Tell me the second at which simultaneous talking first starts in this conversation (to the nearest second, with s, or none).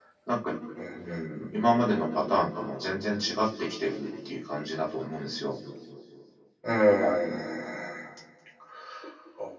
none